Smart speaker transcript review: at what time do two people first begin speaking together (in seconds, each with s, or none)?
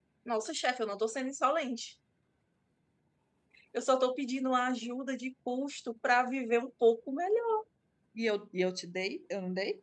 none